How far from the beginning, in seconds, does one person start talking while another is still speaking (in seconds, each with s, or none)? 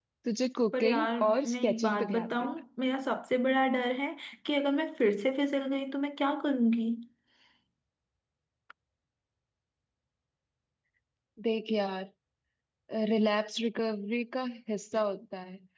0.7 s